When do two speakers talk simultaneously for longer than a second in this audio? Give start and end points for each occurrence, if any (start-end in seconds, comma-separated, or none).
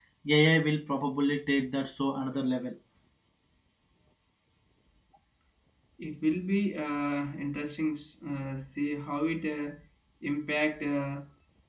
none